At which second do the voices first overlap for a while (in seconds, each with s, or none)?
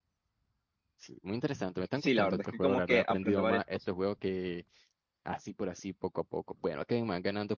2.0 s